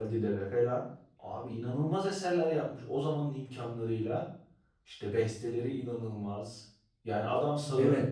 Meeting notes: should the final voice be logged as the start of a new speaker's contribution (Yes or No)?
No